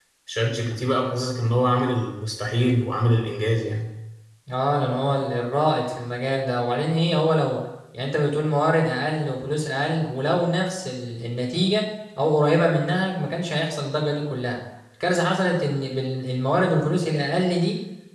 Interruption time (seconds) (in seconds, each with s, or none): none